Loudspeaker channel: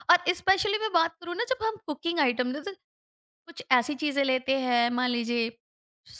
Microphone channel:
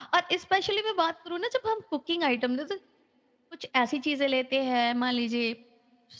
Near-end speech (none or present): none